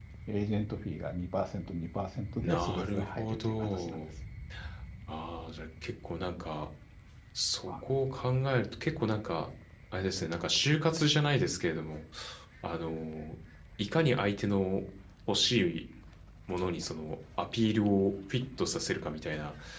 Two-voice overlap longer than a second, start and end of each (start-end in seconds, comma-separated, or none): 2.4-4.0